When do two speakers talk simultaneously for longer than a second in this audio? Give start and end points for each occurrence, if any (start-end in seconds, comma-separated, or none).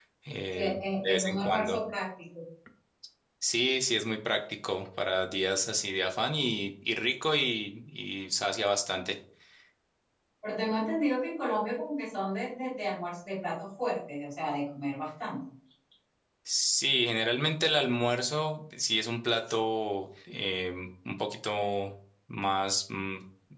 0.5-1.8